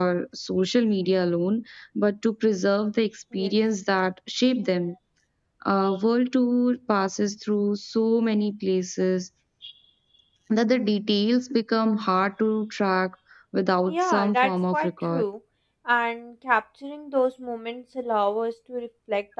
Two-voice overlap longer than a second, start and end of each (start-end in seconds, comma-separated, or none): 13.9-15.2